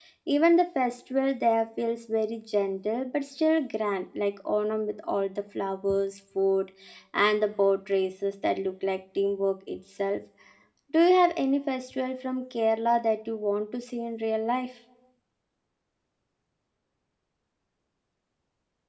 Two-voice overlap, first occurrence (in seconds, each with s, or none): none